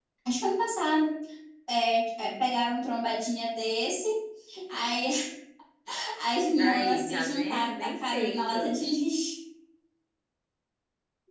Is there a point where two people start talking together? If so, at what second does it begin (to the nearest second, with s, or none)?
7 s